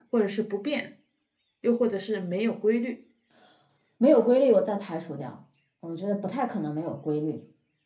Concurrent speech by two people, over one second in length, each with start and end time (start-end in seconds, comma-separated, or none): none